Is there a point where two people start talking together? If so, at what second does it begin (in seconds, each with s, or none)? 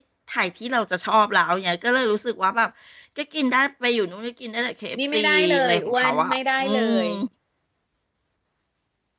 4.9 s